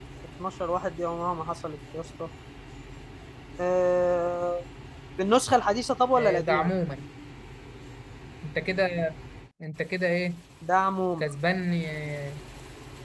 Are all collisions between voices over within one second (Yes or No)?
Yes